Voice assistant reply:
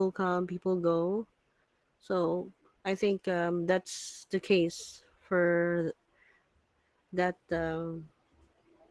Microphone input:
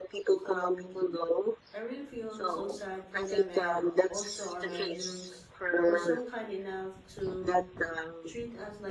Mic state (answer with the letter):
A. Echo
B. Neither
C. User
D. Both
D